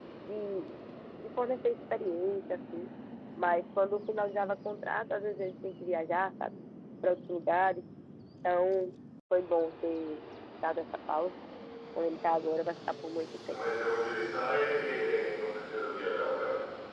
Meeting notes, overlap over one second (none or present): none